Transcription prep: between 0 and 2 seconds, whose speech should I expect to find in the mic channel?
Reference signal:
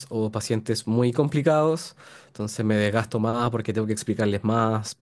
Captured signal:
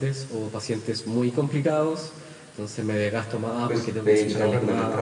echo only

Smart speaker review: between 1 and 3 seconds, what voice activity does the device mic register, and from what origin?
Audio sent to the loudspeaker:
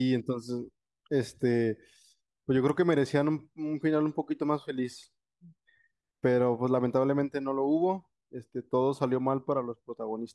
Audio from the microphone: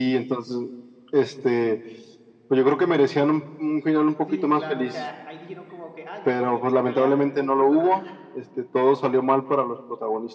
echo only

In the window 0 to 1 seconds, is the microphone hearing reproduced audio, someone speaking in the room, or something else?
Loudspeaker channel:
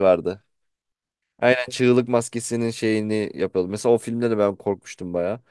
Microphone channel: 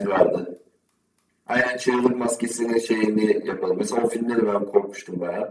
echo only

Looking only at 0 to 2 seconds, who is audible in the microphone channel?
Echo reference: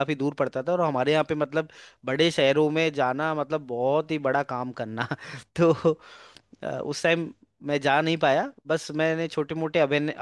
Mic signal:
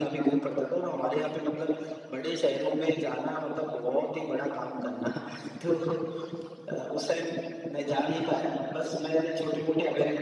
echo only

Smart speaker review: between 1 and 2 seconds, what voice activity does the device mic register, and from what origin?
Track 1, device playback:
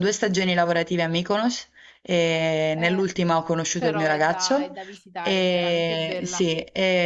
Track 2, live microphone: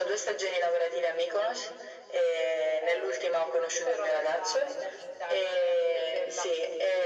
echo only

